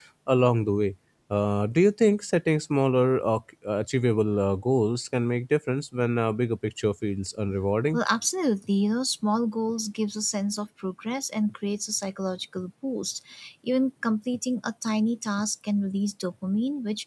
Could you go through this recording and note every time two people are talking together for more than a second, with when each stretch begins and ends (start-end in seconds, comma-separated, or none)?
none